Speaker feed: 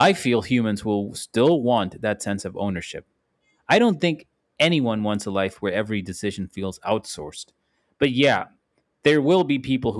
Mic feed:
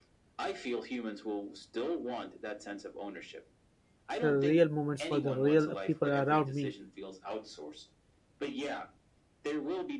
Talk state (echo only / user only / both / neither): both